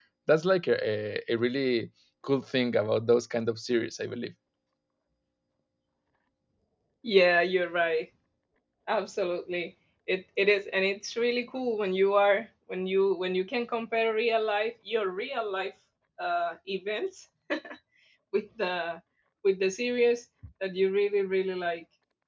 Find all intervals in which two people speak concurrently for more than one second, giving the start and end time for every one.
none

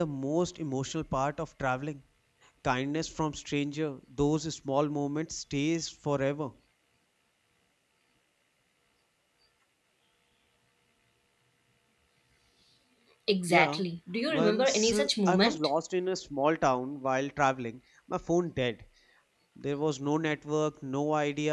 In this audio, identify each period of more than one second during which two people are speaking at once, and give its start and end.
14.3-15.7

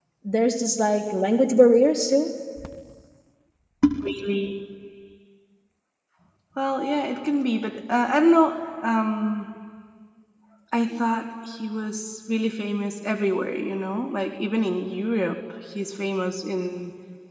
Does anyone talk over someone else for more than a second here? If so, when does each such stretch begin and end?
none

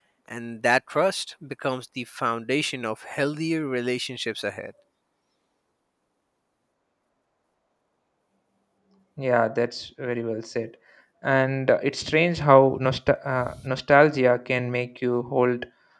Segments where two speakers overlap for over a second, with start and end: none

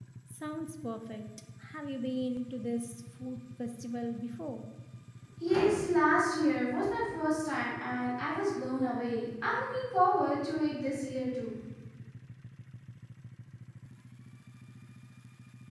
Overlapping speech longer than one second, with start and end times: none

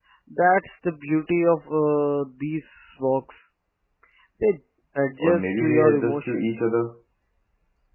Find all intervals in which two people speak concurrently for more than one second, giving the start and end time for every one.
5.2-6.4

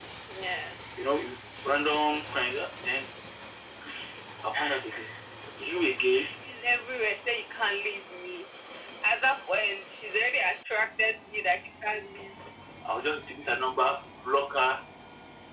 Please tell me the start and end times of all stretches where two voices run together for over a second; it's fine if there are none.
none

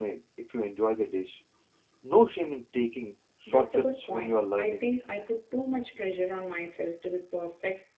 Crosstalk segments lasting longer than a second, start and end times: 3.5-4.8

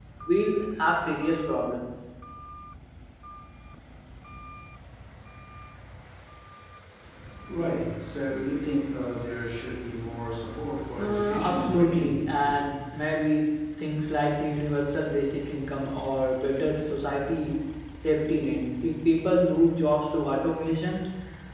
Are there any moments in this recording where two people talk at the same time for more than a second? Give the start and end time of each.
11.0-12.5

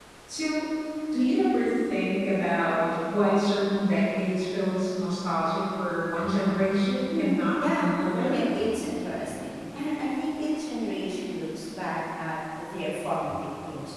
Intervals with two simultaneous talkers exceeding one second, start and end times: 7.2-8.4

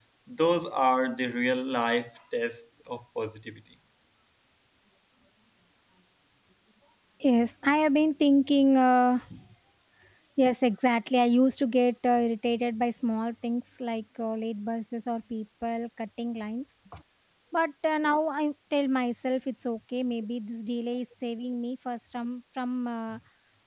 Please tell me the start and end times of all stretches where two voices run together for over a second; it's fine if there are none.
none

